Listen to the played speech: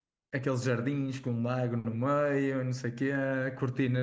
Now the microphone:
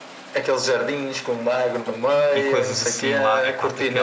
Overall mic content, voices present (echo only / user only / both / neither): both